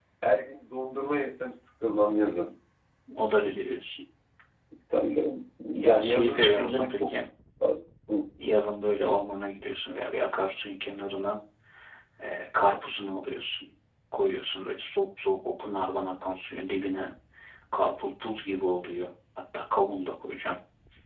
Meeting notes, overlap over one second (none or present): present